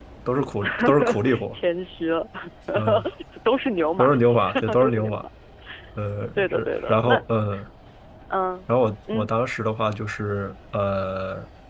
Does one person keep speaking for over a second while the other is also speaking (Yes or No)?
Yes